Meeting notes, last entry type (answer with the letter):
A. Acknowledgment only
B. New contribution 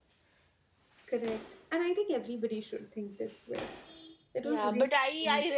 B